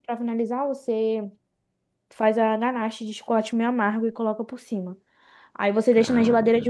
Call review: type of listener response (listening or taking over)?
listening